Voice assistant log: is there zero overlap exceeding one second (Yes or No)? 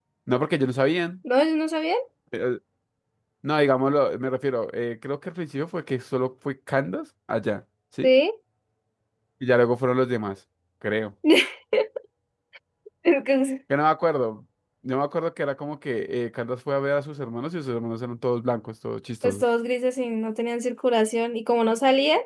Yes